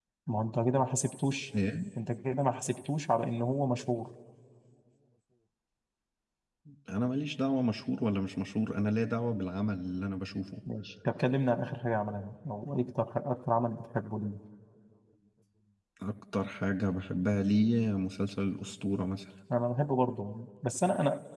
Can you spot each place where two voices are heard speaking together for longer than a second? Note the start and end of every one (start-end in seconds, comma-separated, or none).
none